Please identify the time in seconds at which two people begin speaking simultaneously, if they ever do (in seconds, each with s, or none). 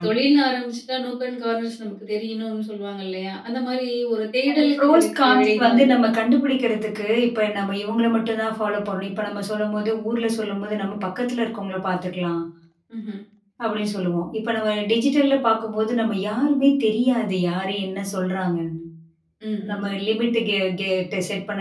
4.5 s